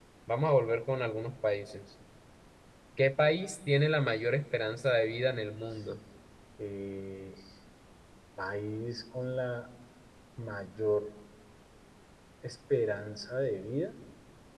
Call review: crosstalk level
none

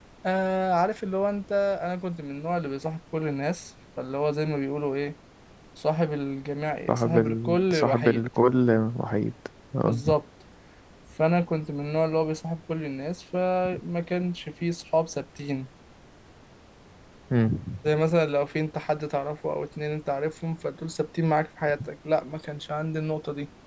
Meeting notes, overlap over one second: present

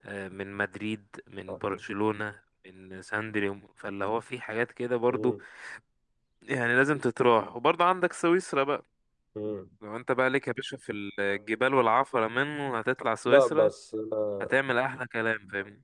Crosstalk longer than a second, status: none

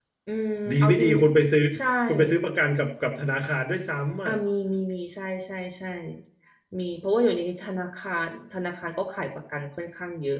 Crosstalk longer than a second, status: none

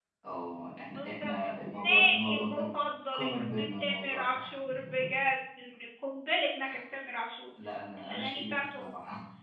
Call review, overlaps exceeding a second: present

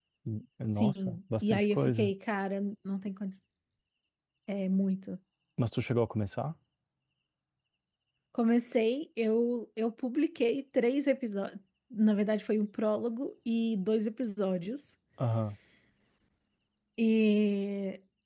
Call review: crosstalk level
present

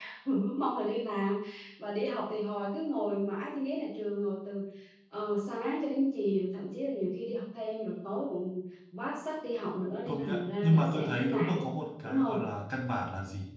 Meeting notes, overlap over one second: present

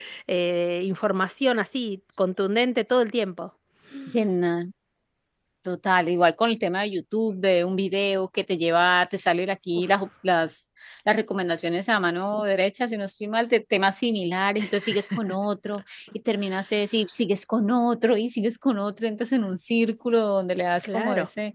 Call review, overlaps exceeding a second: none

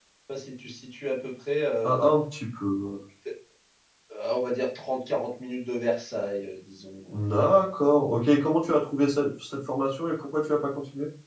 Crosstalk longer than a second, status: none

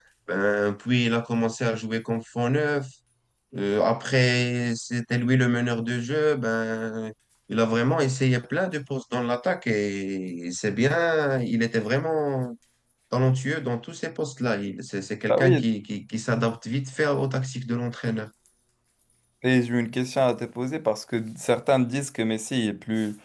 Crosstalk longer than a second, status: none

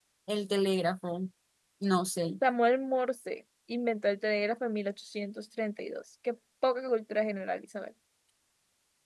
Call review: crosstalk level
none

